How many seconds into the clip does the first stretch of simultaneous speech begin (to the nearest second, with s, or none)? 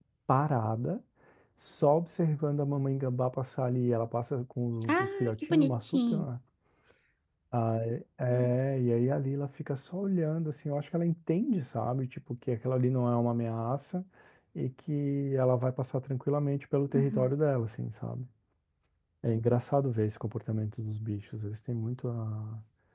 5 s